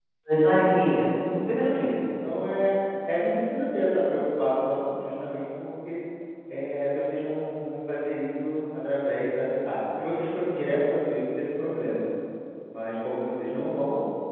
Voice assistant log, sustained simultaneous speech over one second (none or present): none